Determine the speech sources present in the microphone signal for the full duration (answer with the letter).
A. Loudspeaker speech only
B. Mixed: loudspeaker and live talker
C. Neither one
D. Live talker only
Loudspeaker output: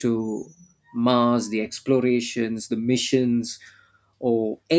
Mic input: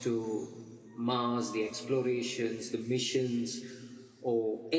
A